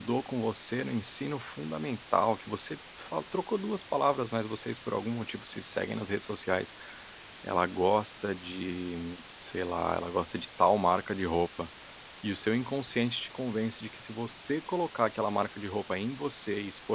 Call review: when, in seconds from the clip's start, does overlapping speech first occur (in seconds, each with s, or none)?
none